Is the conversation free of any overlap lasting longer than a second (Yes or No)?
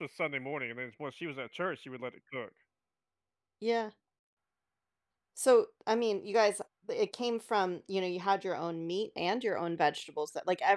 Yes